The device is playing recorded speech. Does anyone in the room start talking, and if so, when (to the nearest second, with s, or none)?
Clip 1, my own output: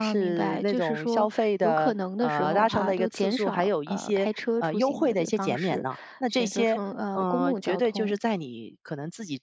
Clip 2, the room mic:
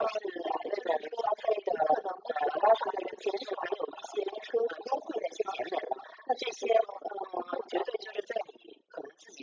none